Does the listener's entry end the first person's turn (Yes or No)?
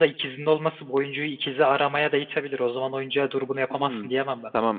Yes